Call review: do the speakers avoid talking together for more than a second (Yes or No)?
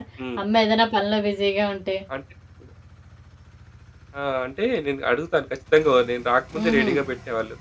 Yes